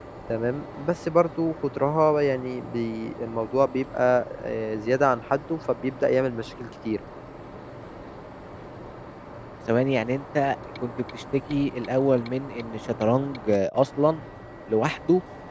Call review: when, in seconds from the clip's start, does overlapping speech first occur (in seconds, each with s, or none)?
none